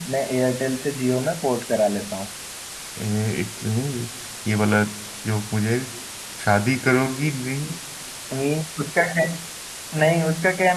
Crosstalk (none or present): none